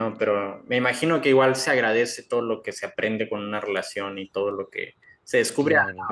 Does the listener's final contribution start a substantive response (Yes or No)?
No